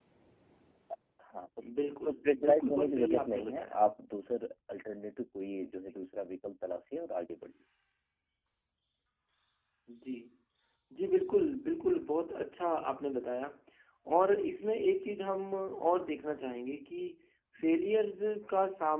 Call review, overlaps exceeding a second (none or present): present